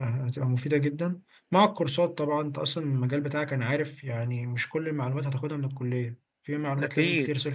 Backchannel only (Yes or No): No